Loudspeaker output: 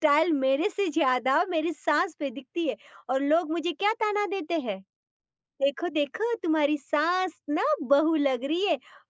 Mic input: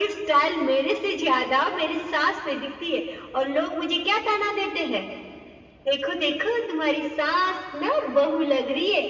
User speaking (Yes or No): No